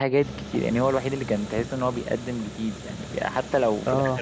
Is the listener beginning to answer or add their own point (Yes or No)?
No